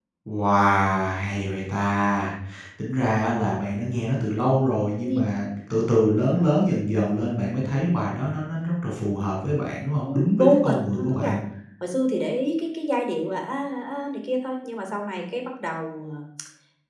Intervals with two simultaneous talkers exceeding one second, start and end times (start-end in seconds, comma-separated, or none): 10.1-11.3